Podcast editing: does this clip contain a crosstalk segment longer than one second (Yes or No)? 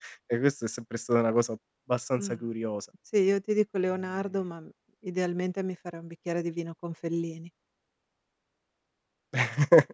No